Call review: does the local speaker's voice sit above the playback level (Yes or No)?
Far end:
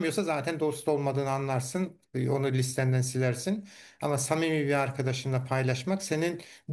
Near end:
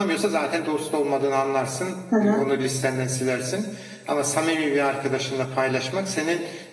Yes